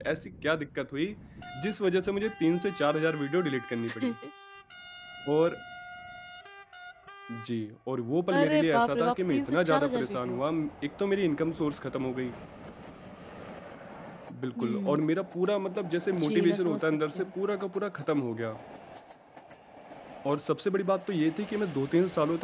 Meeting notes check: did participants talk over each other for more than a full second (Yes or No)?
Yes